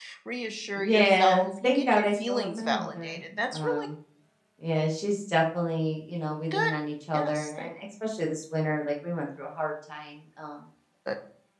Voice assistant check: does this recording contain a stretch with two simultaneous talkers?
Yes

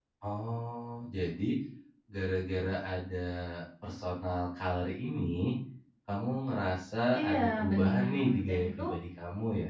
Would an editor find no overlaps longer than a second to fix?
No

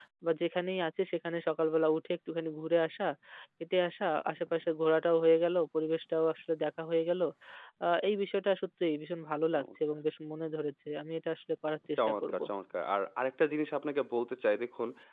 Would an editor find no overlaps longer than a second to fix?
Yes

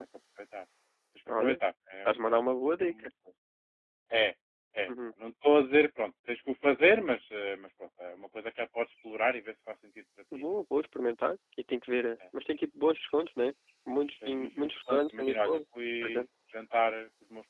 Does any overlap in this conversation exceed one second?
Yes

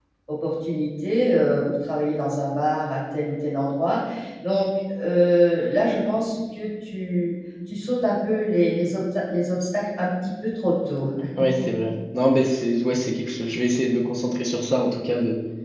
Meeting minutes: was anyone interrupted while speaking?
No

